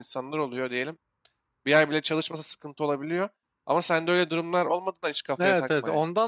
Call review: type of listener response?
taking over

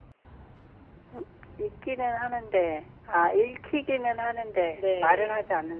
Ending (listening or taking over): taking over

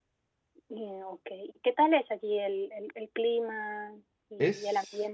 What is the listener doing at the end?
taking over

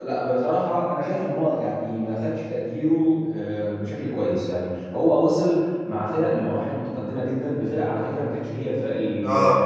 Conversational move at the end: listening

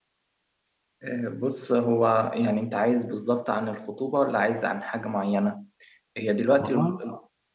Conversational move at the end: listening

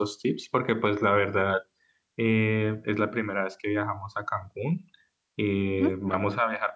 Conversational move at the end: listening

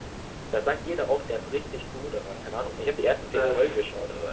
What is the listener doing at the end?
listening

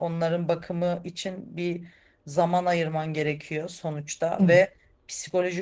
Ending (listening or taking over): listening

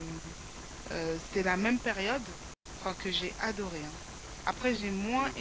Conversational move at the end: listening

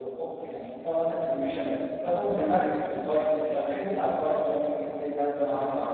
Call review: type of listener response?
taking over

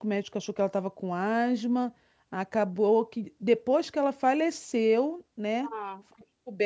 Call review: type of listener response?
listening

